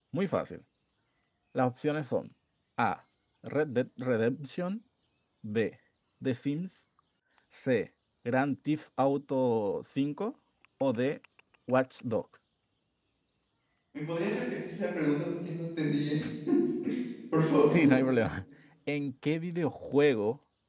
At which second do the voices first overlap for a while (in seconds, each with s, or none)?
none